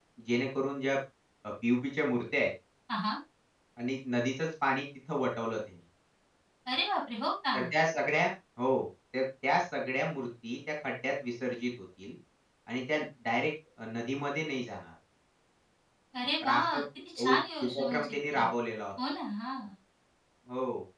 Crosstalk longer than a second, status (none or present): present